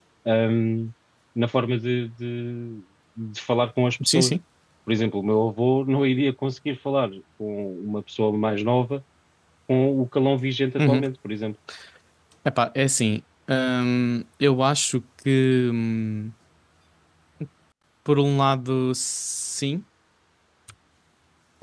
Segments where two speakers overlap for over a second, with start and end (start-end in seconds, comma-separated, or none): none